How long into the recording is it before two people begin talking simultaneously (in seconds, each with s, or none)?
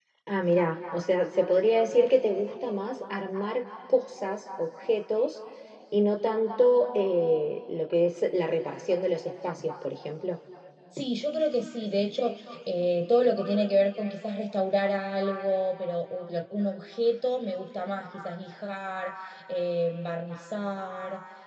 none